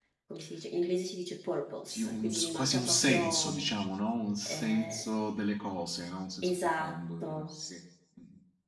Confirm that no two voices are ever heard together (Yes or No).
No